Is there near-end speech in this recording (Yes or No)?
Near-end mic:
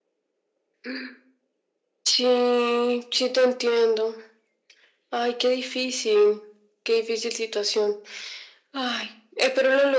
No